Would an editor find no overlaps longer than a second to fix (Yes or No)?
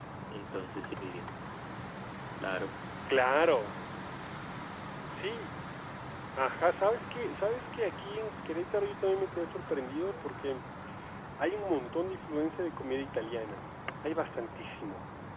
Yes